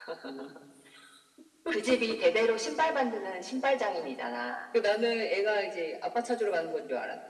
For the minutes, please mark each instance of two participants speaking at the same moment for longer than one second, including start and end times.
none

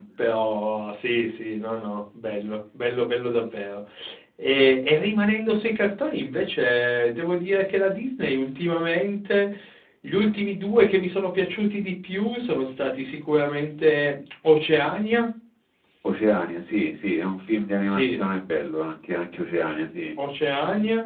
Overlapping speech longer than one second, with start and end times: none

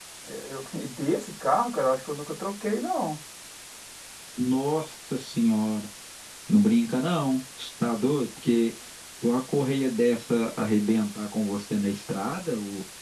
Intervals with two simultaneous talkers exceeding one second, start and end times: none

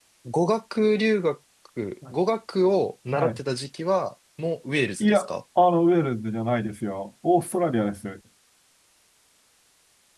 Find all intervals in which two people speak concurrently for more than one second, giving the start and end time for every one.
none

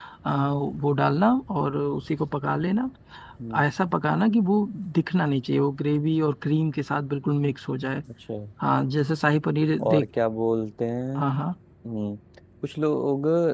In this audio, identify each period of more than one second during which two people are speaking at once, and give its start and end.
none

